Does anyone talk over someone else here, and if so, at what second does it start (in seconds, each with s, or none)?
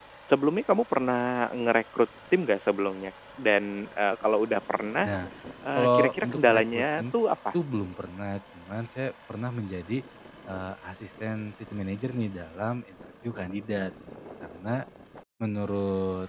5.8 s